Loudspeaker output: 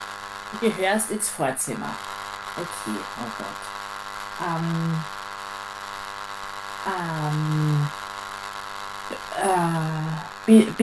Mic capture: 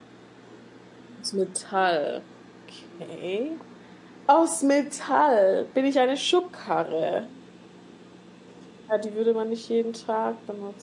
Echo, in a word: none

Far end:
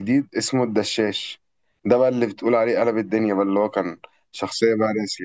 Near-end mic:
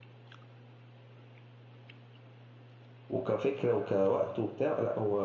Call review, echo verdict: none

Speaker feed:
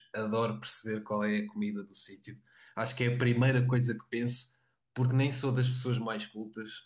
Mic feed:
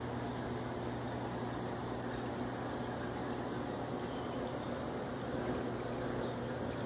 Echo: none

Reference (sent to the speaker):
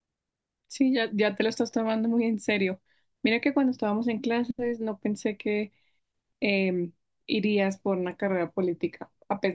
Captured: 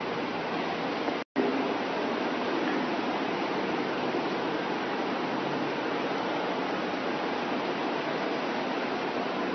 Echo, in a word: none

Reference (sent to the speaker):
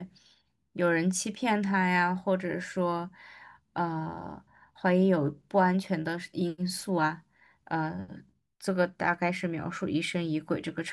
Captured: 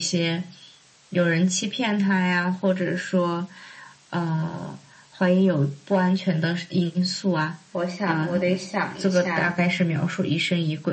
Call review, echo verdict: present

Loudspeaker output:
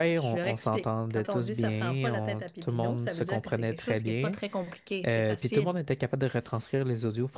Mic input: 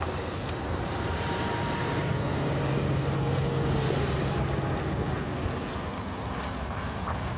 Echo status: none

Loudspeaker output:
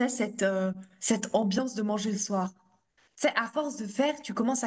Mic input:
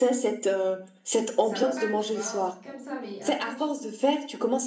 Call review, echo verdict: present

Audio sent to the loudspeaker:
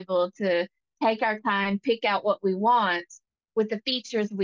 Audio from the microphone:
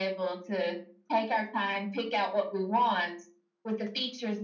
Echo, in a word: present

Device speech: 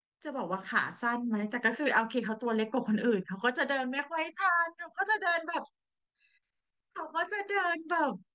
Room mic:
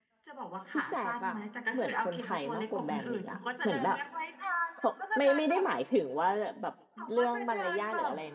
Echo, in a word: present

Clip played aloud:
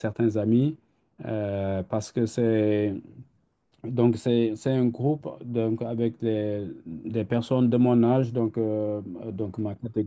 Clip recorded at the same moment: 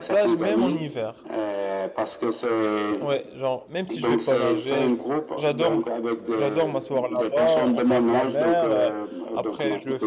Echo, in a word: present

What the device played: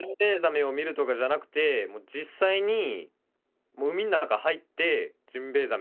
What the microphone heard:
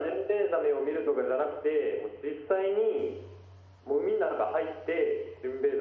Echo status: present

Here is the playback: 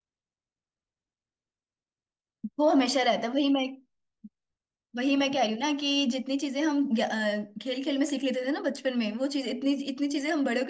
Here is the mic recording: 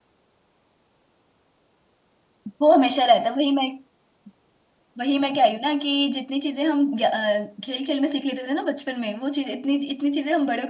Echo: present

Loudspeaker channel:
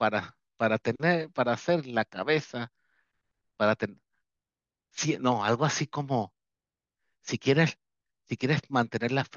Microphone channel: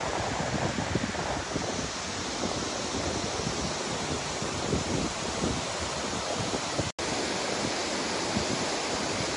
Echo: none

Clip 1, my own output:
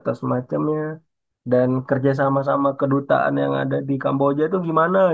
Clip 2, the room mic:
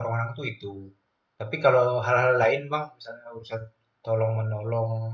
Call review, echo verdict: none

